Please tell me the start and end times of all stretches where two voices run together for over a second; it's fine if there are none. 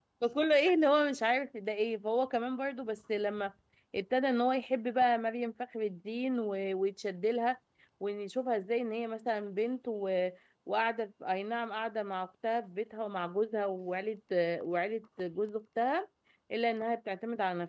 none

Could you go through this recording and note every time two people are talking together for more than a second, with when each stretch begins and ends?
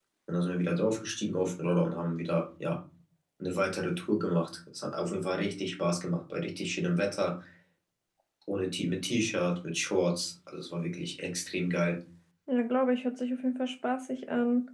none

